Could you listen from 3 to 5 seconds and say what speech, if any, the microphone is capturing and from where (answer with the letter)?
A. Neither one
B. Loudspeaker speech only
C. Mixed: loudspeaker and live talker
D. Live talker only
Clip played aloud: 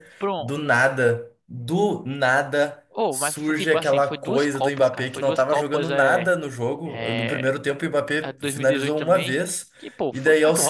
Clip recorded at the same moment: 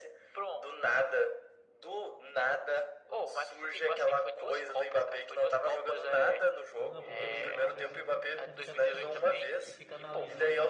B